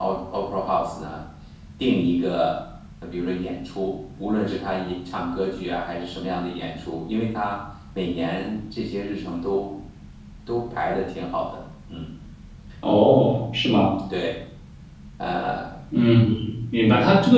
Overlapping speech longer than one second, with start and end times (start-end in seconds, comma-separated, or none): none